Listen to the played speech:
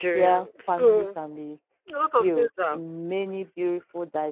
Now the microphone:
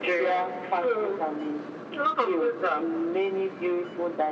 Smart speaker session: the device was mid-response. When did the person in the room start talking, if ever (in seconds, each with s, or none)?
none